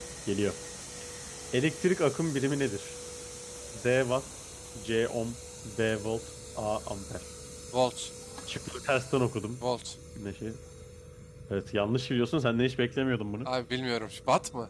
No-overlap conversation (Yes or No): Yes